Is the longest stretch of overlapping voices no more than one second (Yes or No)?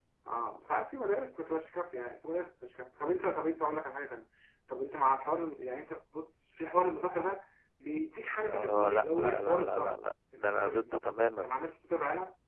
No